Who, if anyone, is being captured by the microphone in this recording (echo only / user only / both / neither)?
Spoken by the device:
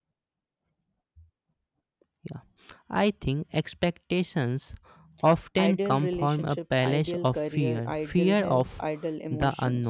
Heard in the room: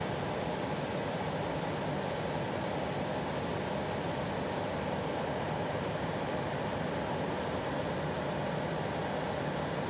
neither